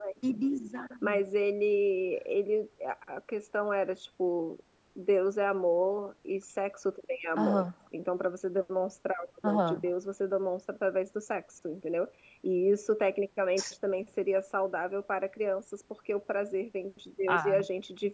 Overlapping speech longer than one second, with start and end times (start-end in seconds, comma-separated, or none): none